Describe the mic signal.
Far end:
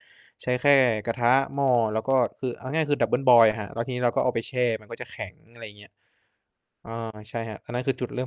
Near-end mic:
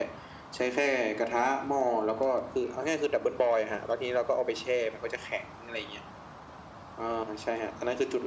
echo only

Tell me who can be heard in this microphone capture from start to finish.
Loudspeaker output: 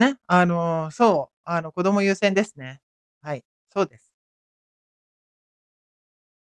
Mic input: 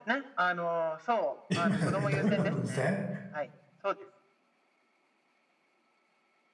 both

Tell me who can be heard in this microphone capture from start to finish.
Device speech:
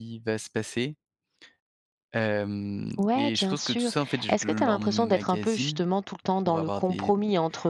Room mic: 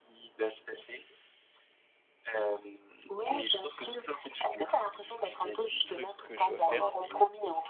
both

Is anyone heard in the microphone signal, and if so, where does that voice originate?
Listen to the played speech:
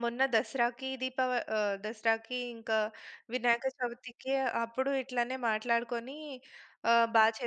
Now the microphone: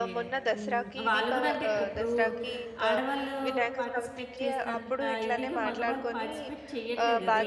both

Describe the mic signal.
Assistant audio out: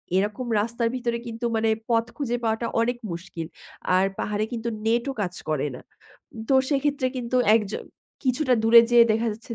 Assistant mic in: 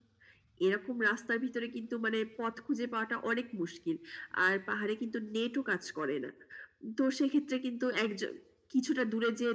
echo only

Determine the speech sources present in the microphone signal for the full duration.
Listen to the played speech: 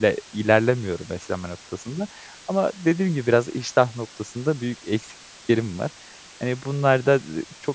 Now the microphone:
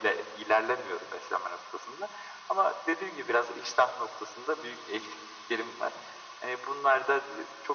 echo only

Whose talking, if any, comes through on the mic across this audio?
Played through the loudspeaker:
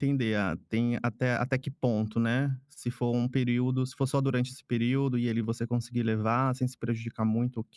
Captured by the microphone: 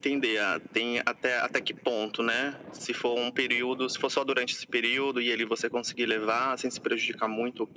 echo only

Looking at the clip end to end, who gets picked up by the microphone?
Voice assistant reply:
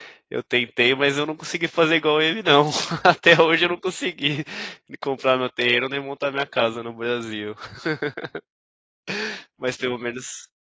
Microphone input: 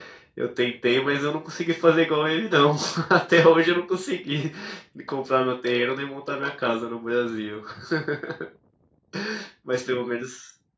echo only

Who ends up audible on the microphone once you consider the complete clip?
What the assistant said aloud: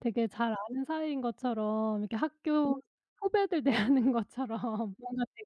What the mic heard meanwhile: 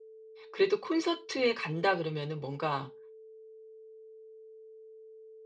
user only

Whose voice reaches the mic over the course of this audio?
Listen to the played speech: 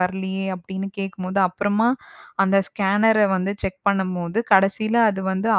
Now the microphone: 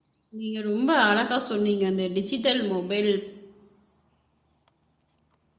user only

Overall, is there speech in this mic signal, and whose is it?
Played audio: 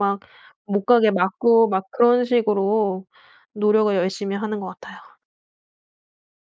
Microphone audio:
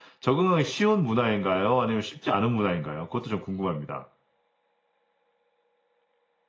user only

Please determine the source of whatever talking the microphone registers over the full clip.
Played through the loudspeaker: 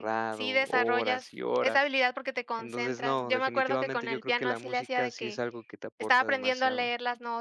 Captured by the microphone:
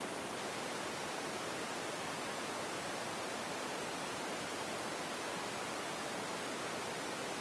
neither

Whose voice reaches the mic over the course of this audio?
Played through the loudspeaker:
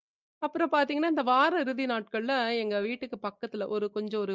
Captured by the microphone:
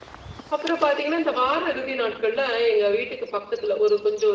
echo only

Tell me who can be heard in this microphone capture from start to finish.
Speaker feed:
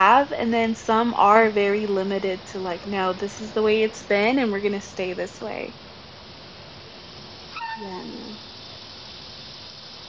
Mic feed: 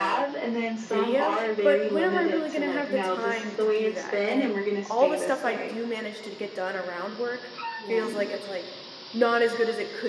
both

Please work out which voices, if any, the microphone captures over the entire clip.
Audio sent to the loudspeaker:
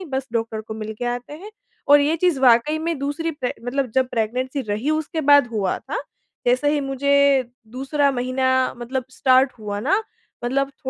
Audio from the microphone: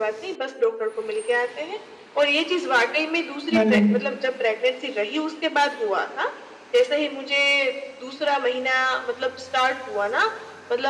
both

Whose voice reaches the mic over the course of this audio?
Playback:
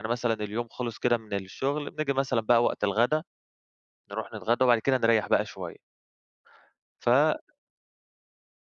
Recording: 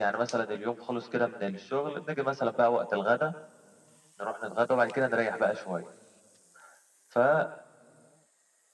echo only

